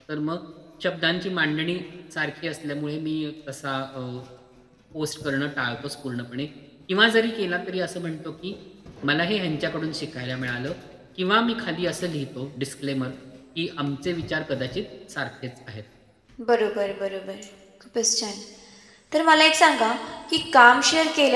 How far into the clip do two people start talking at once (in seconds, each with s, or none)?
none